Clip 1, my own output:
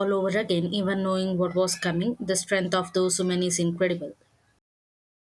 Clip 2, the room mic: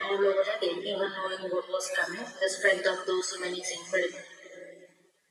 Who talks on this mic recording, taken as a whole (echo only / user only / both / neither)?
echo only